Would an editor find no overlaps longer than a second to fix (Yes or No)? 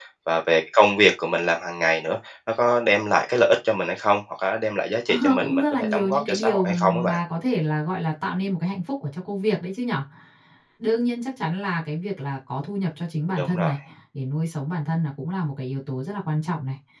No